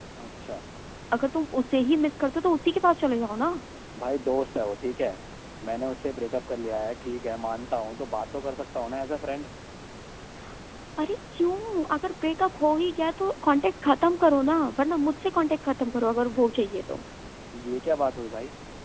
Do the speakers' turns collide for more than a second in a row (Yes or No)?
No